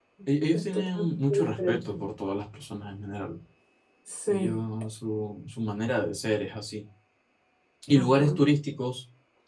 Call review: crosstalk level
present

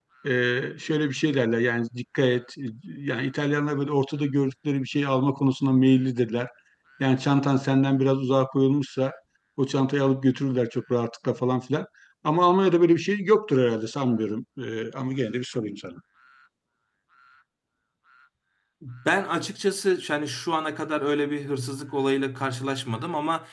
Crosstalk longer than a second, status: none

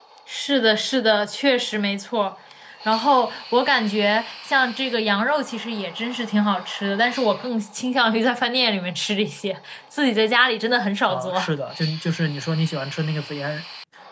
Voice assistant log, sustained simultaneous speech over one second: none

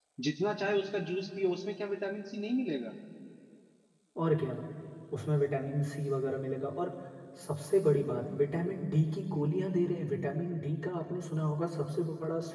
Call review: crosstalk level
none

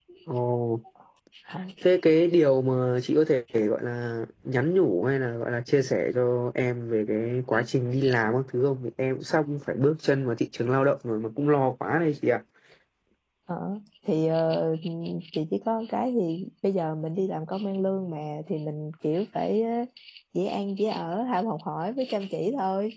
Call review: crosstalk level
none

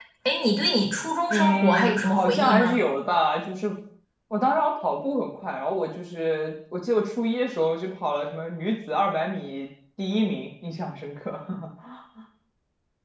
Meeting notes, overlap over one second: present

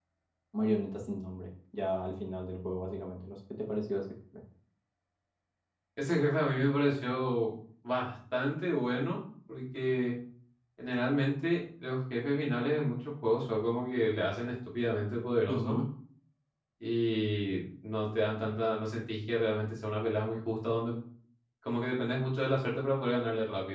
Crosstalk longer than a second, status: none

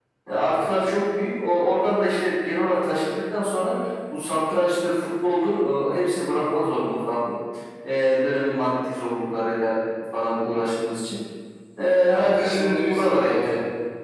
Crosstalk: present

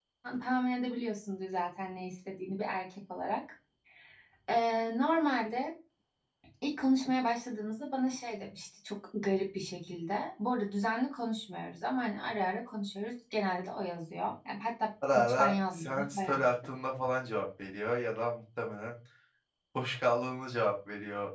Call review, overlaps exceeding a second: present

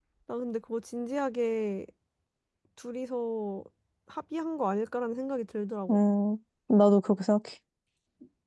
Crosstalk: none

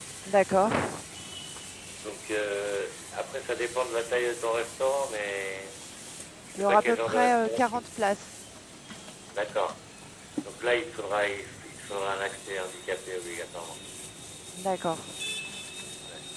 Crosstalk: present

